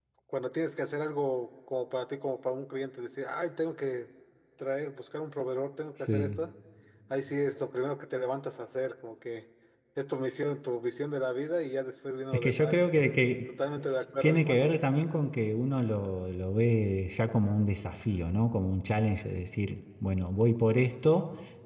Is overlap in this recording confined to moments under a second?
Yes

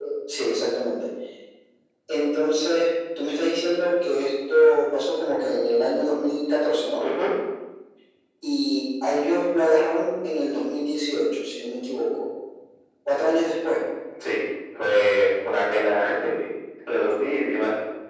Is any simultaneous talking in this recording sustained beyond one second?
No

